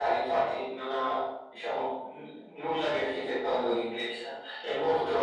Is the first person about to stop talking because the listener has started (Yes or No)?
No